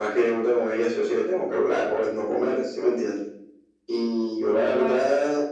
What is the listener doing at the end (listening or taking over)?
listening